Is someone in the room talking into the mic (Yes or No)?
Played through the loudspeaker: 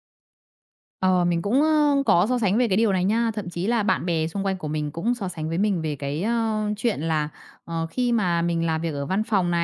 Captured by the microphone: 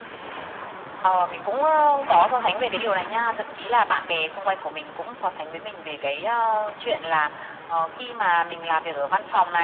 No